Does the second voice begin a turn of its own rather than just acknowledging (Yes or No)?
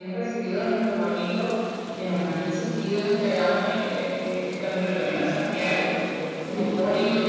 No